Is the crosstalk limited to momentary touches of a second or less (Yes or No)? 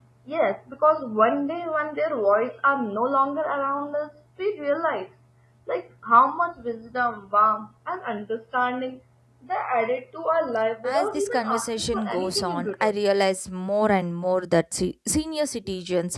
No